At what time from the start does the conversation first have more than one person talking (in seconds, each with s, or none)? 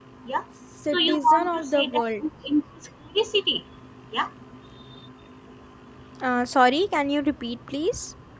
0.9 s